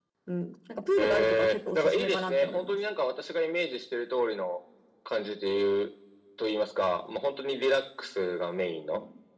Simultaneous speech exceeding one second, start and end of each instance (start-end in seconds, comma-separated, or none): 1.0-2.8